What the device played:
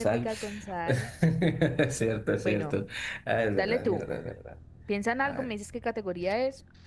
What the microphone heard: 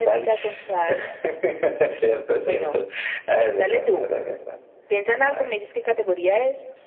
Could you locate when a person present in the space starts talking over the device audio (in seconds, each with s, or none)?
none